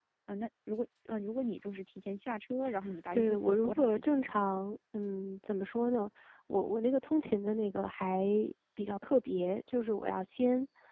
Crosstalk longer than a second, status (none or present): present